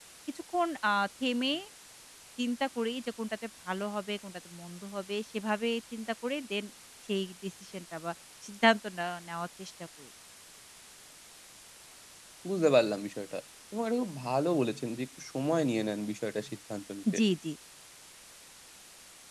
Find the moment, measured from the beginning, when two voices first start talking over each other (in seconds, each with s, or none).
none